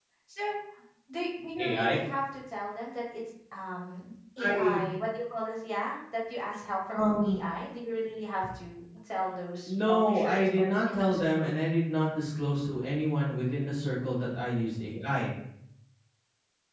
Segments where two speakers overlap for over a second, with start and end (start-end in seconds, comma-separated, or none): 9.7-11.5